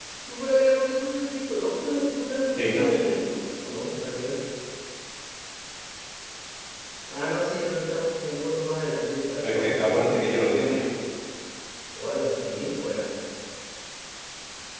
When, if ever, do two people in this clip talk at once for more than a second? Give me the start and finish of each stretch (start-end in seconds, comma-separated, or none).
9.4-10.7